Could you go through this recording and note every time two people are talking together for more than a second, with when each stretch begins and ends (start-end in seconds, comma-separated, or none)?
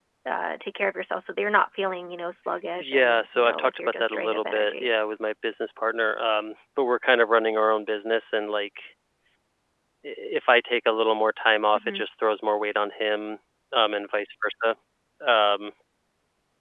2.8-4.9